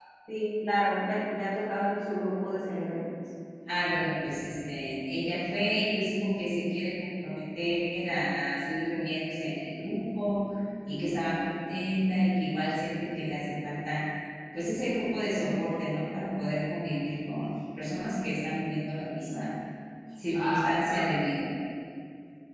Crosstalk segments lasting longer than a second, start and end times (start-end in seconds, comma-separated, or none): none